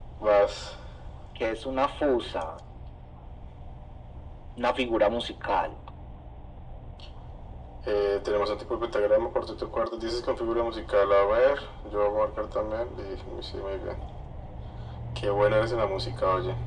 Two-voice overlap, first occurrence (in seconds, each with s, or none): none